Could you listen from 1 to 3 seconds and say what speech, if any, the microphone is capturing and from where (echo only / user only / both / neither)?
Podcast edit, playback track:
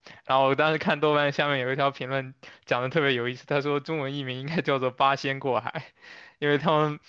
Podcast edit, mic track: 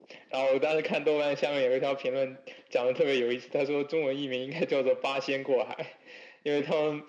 echo only